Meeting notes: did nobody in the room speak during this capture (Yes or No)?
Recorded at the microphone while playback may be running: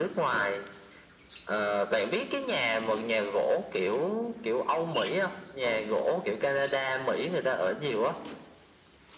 Yes